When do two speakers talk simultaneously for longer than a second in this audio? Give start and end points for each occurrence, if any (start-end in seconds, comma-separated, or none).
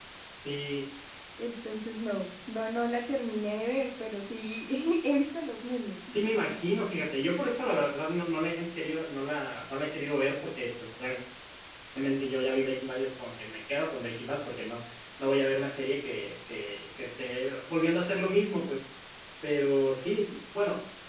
none